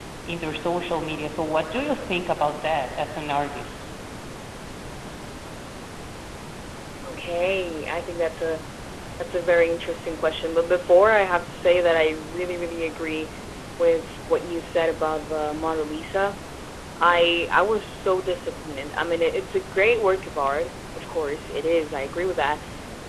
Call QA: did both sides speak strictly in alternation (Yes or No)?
Yes